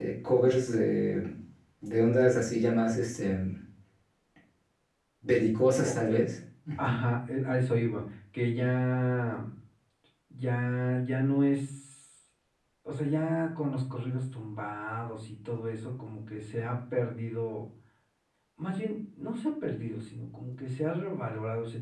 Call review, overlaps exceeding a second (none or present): none